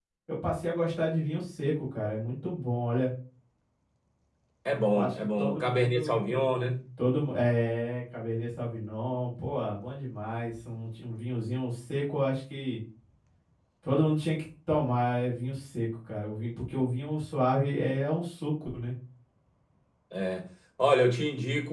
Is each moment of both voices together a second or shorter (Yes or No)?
No